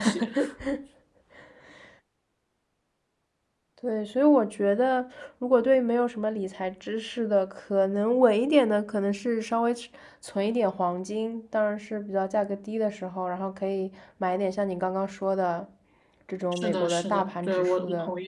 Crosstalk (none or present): present